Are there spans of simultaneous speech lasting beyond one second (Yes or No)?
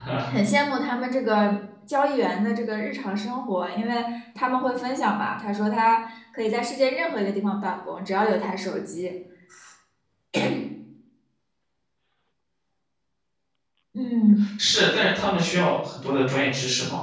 No